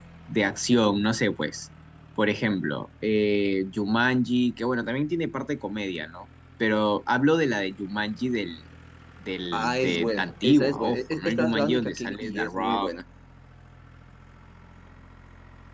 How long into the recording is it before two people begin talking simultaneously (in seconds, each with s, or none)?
9.5 s